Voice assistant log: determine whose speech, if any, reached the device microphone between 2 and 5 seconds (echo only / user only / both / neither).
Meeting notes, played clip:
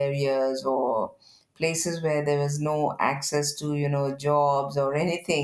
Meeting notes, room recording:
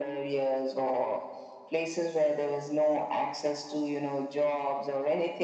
echo only